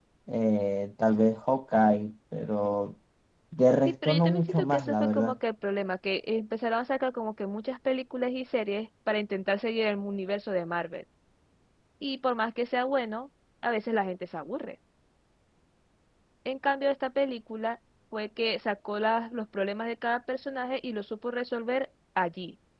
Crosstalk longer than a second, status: present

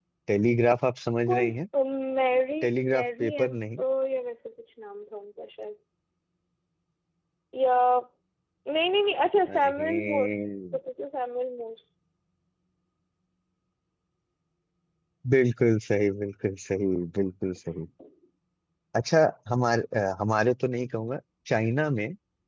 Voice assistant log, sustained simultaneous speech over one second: present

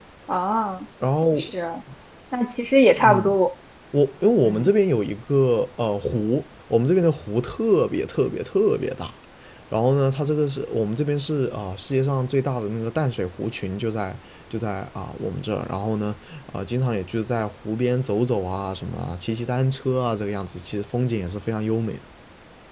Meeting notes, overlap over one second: none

